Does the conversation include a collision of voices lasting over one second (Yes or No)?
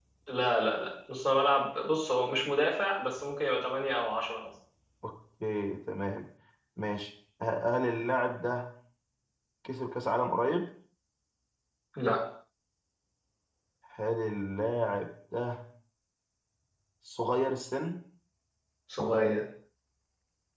No